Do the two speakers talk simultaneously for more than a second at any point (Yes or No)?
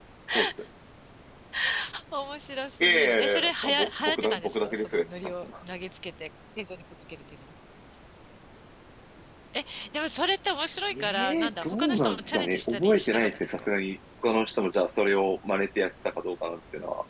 Yes